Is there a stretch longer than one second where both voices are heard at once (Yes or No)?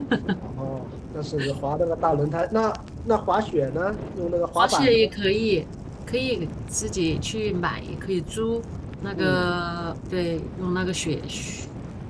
No